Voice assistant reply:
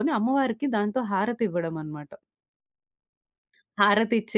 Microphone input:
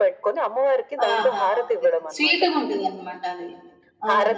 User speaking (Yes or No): Yes